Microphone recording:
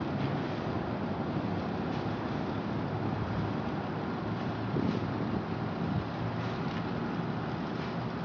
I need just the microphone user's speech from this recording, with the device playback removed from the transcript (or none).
none